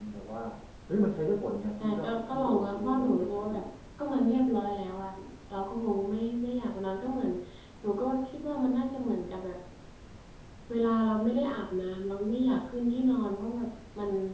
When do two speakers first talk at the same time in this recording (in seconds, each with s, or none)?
1.8 s